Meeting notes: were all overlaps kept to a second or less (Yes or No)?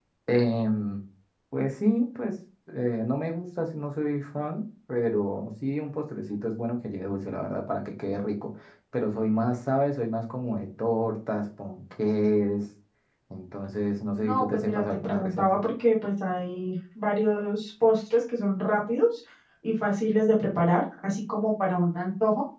No